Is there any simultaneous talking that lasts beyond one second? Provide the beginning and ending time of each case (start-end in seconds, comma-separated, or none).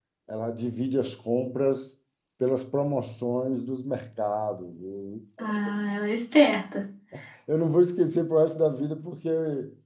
none